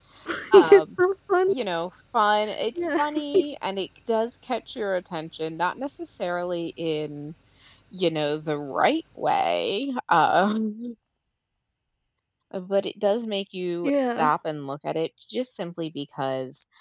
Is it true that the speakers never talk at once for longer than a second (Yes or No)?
Yes